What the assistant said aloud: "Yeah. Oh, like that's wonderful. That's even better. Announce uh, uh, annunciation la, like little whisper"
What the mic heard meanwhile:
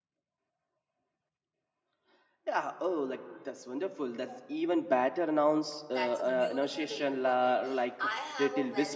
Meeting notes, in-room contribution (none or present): present